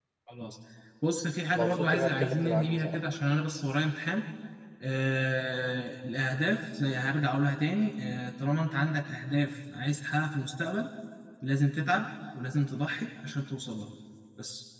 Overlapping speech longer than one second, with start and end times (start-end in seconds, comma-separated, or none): 1.6-3.0